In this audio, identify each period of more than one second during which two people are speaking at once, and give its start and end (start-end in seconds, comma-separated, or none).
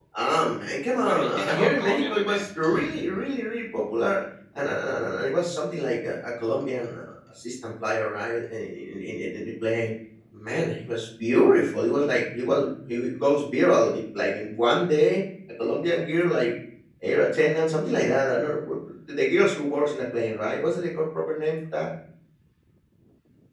0.9-2.4